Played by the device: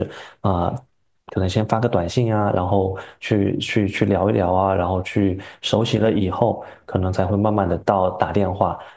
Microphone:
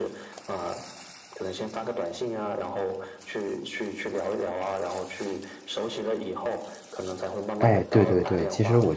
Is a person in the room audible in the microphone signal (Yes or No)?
Yes